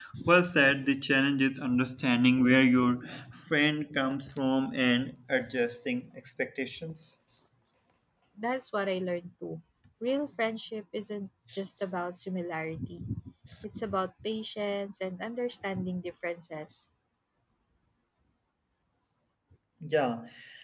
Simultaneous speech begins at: none

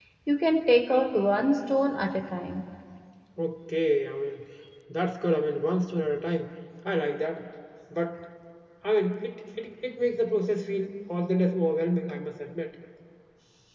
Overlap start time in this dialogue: none

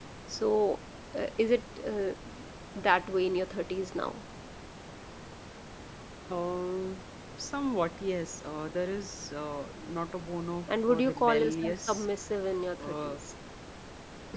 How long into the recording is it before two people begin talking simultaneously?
10.7 s

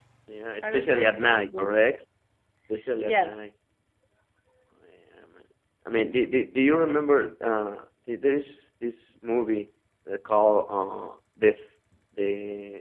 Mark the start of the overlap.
0.6 s

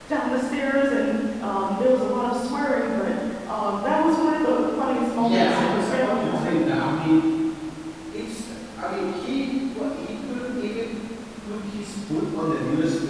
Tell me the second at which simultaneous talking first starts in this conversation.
5.2 s

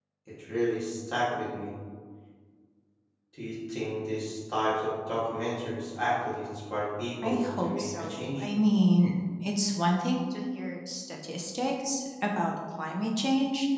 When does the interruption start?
7.2 s

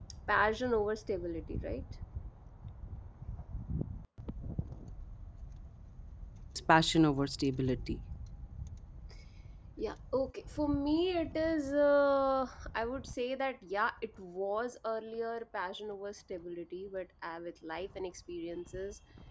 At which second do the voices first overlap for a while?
none

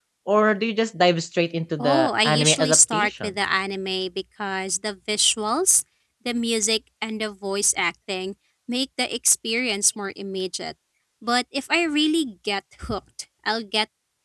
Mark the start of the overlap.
1.8 s

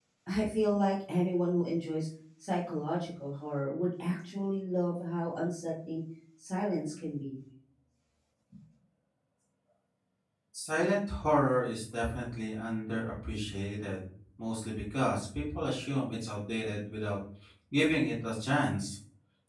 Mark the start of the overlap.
none

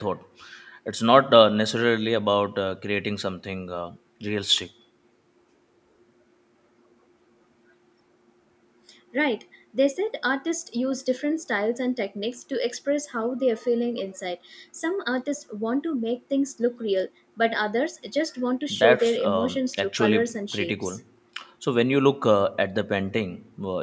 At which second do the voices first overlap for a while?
18.7 s

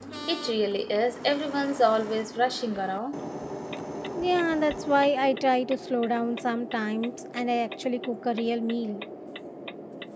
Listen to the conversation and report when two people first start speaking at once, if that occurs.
none

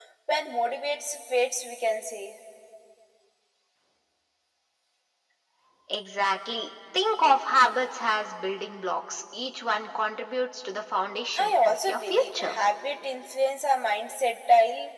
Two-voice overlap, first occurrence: 11.4 s

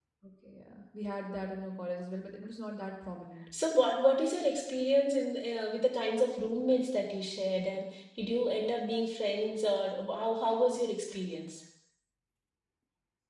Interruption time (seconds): none

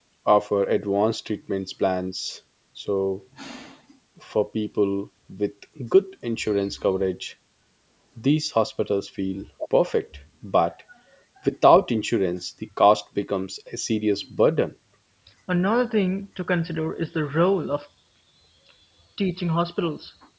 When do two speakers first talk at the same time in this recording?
none

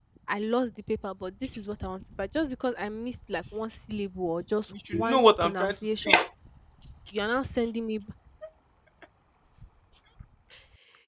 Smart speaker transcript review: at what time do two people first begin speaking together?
4.9 s

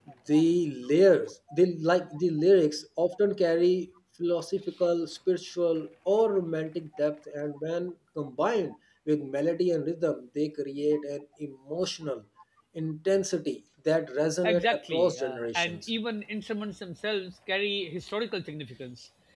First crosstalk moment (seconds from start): 14.4 s

